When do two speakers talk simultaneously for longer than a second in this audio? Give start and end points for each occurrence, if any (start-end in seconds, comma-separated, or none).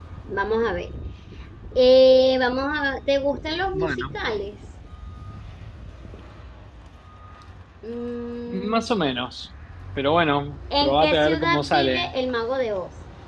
10.8-12.1